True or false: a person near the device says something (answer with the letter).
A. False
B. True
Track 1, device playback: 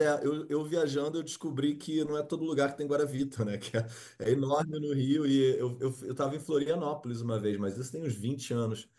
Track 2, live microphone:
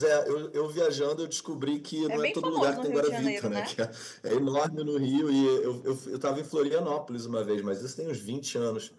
B